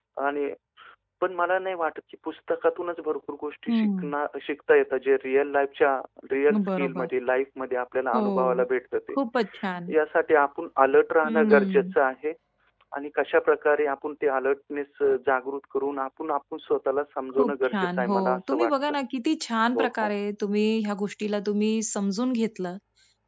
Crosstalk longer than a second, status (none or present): present